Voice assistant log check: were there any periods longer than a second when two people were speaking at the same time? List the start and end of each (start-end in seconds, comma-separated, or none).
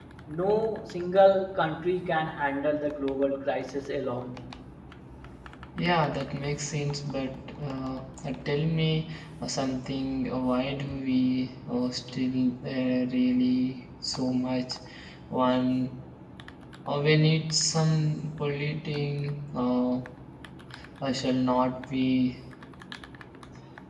none